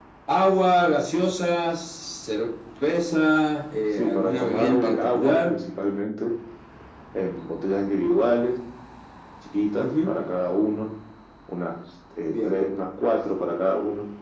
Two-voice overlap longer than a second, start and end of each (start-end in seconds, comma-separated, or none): 4.0-5.5